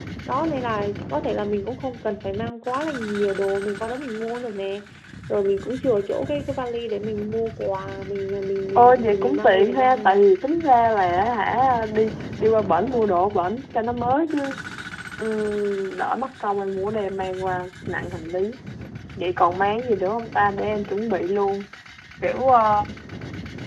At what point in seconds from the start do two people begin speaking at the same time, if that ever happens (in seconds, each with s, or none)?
8.8 s